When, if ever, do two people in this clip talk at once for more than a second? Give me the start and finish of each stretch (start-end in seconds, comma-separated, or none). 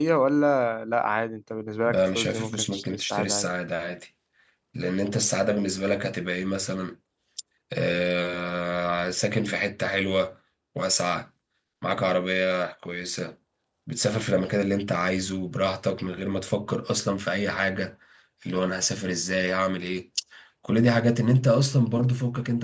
1.9-3.5